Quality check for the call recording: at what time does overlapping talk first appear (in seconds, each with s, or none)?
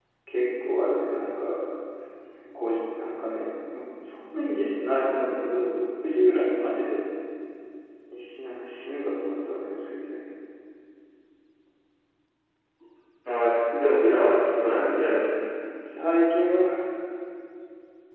none